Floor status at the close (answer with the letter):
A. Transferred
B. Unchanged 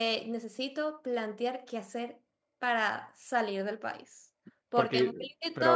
A